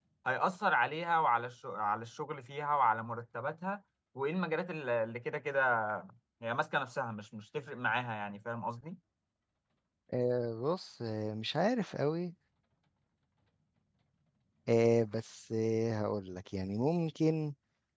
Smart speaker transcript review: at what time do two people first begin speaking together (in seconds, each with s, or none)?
none